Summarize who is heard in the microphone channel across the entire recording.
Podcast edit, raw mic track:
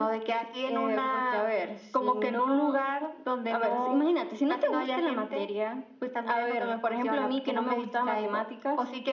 echo only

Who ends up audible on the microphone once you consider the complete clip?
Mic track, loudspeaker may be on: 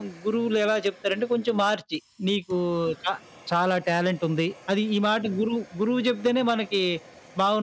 user only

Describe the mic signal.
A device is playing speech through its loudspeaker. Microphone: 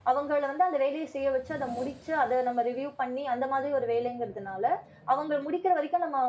echo only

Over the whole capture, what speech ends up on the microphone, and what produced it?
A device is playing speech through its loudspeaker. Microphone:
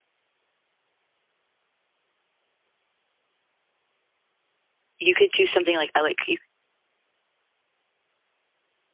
user only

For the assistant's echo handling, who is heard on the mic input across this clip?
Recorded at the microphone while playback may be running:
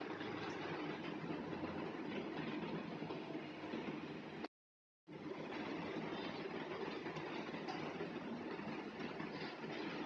neither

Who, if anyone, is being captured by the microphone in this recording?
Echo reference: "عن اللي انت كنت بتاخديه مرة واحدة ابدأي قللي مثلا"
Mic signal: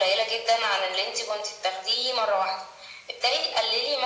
echo only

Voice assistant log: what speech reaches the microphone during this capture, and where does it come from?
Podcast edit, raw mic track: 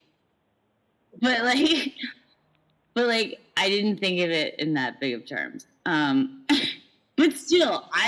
echo only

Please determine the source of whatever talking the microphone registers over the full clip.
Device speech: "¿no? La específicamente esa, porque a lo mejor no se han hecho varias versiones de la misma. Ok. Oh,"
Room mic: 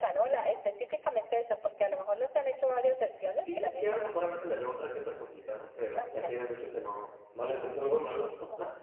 both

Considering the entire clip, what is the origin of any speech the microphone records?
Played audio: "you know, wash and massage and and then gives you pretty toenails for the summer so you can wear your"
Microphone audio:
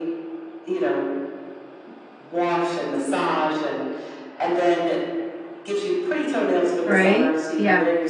both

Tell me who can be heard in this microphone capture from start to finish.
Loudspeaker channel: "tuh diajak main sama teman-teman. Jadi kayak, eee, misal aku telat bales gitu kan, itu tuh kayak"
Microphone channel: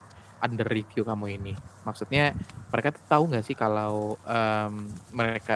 user only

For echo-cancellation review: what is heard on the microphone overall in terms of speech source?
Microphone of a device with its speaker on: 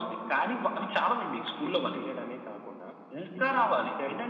echo only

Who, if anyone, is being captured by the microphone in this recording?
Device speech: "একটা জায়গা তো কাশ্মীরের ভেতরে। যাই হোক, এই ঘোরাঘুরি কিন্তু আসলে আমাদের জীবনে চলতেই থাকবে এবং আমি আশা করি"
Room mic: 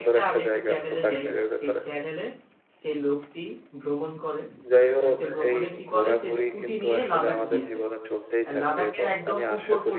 both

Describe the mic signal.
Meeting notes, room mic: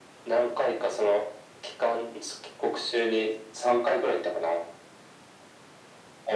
echo only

